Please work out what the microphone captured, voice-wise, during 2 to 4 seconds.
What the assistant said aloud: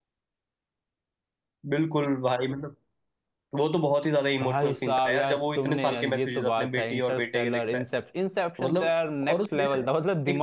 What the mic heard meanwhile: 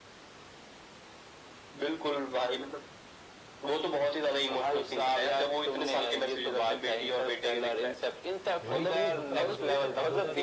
echo only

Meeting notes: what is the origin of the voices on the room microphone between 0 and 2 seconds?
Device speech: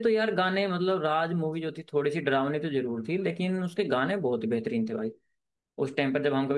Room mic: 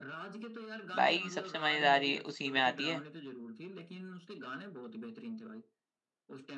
both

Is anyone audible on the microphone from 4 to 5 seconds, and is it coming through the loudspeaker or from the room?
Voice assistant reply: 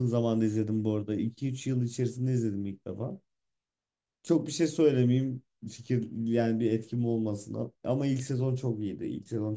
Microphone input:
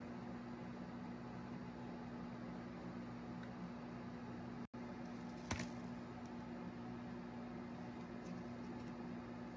neither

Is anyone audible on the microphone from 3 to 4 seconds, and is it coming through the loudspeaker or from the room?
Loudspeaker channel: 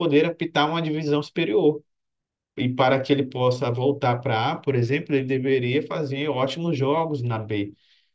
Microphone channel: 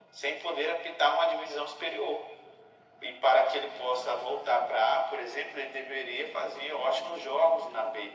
echo only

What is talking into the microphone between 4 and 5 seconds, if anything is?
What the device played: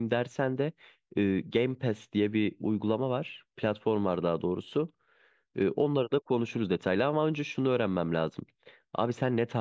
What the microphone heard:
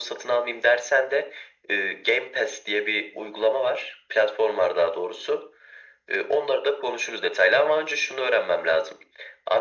echo only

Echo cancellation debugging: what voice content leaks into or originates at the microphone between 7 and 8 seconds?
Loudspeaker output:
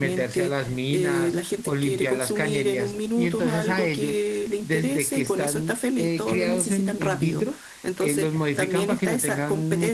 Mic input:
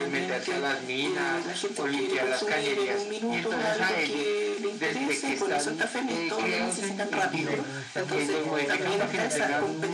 both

